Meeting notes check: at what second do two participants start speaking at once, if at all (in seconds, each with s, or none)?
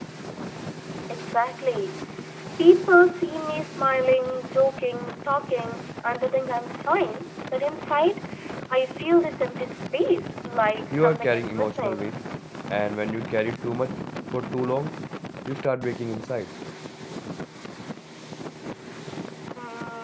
10.9 s